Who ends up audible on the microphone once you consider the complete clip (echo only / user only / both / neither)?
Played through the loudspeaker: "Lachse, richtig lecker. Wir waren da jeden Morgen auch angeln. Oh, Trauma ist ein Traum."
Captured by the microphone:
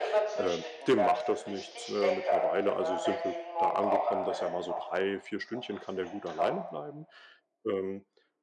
both